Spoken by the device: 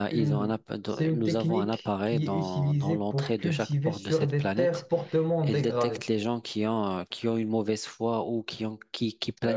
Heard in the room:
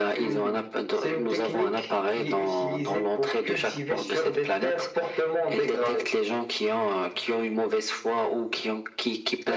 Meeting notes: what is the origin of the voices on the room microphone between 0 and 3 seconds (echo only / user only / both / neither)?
echo only